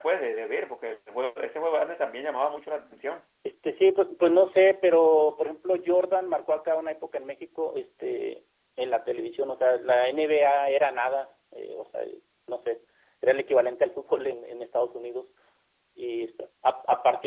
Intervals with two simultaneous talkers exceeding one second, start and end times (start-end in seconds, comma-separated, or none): none